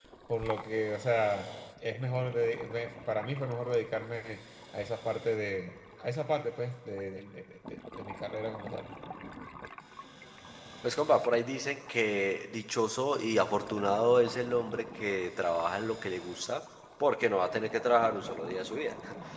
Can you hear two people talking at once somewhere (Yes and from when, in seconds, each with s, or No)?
No